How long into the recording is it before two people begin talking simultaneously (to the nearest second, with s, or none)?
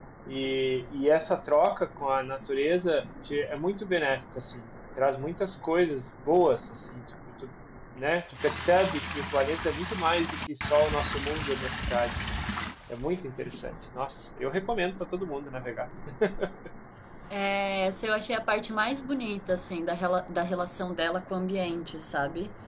none